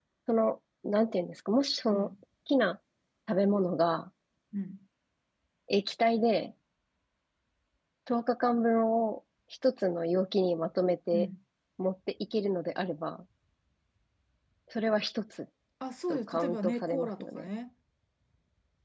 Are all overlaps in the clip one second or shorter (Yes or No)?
No